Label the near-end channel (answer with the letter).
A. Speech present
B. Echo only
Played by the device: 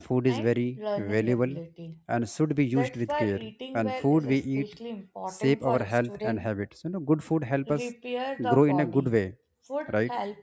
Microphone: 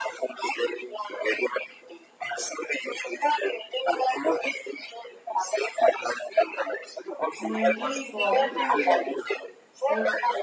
A